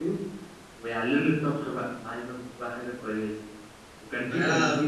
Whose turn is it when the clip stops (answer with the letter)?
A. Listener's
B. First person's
B